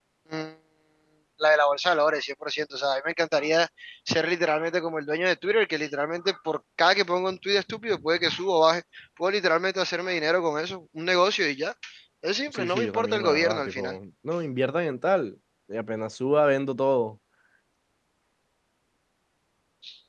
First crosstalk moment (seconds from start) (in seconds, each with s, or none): 12.5 s